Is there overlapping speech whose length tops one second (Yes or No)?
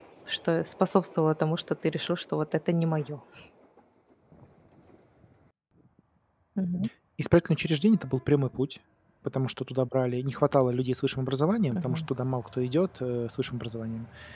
No